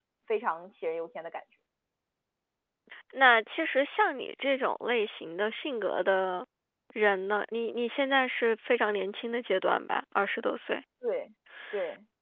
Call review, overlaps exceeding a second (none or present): none